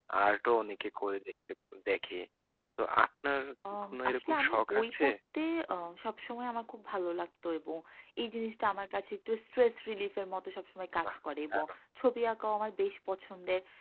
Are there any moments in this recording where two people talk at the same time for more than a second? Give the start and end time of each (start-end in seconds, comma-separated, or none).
3.8-5.1